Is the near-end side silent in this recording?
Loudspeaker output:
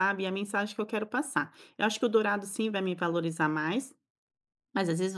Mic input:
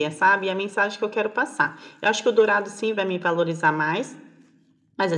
Yes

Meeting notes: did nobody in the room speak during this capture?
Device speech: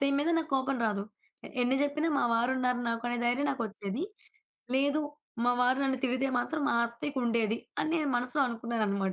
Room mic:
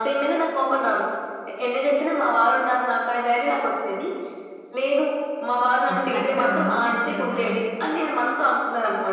No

